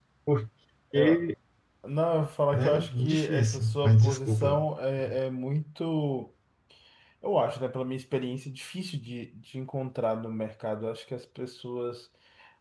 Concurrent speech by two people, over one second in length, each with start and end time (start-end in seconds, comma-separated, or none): 2.5-4.6